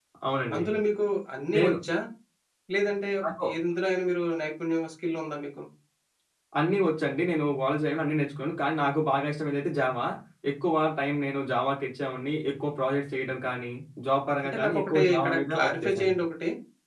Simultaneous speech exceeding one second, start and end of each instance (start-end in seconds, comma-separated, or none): 14.4-16.1